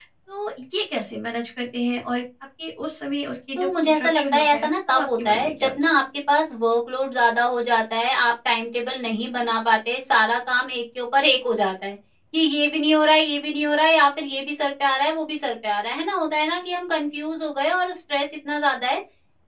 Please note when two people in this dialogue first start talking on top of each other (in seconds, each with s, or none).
3.6 s